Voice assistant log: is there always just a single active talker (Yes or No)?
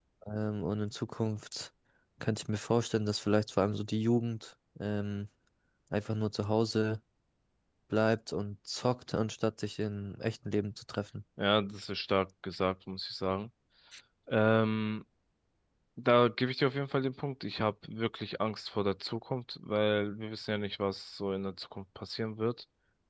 Yes